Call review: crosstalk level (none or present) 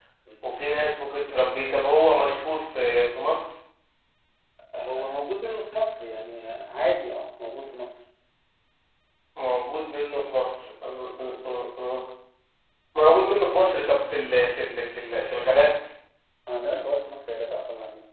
none